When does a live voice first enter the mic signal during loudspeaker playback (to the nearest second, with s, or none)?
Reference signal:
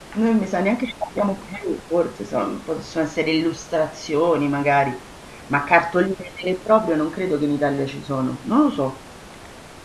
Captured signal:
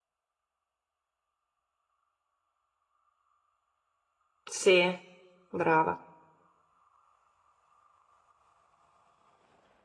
4 s